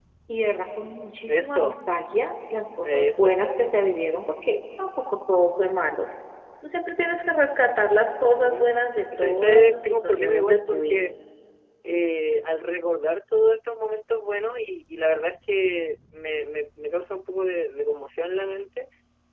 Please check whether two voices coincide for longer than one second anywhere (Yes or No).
Yes